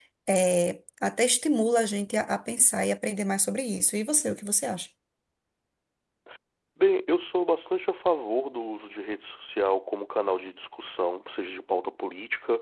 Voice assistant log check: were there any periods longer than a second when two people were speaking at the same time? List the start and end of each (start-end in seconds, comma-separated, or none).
none